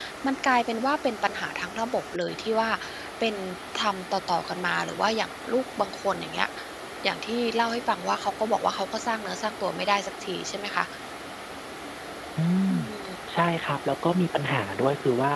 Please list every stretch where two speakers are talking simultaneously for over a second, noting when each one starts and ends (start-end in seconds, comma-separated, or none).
none